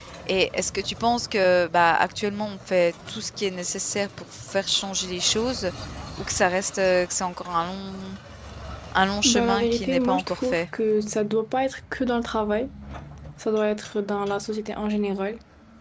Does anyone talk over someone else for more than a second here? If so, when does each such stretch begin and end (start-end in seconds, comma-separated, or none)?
9.2-10.6